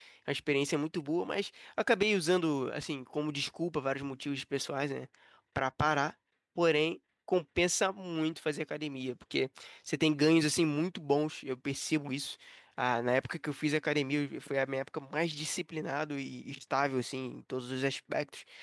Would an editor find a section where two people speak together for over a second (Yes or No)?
No